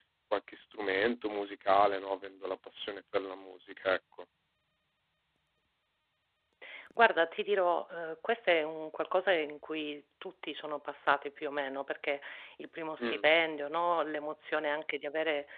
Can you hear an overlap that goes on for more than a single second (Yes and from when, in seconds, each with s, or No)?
No